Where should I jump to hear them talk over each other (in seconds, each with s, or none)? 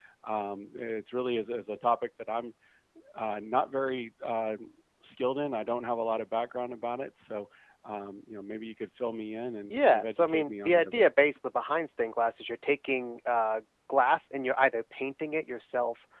9.7 s